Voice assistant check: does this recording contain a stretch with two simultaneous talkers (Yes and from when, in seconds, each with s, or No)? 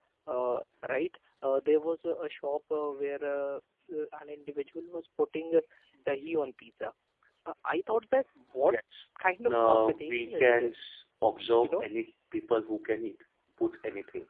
Yes, from 9.5 s